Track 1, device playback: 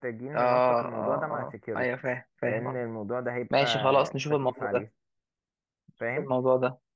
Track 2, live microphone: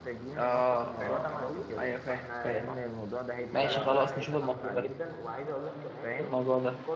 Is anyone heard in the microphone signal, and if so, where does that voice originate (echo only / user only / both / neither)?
both